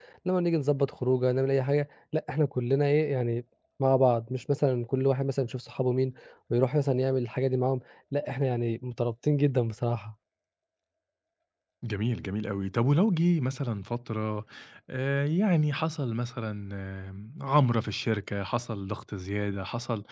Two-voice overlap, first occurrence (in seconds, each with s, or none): none